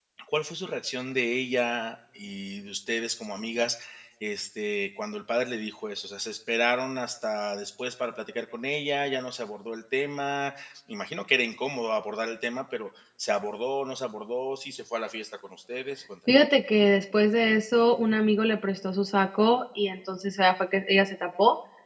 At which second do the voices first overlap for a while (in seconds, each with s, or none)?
none